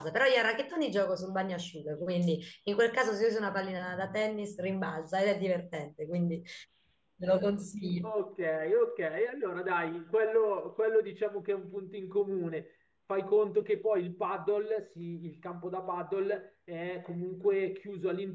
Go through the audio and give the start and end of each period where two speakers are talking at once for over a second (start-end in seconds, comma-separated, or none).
none